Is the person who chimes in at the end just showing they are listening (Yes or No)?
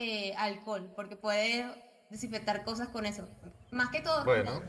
Yes